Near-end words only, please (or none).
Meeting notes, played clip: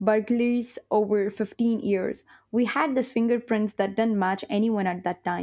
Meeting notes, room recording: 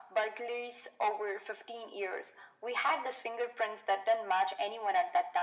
none